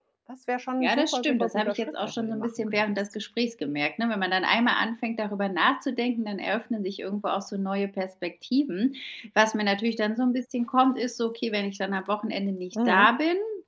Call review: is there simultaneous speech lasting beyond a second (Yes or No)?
Yes